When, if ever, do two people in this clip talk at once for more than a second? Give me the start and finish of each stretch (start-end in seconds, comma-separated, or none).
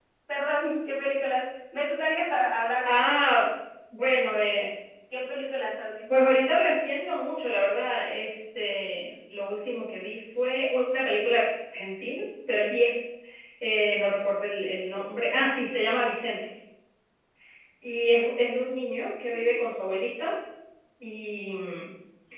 none